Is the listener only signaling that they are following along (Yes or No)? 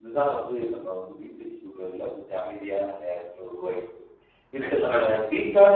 Yes